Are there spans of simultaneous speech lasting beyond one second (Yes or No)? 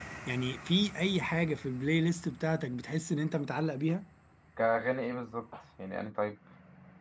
No